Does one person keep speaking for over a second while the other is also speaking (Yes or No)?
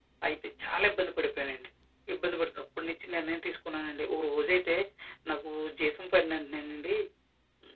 No